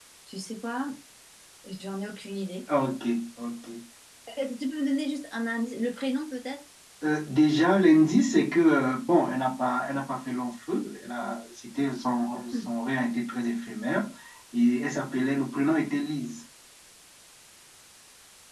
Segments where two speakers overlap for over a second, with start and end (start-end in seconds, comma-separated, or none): none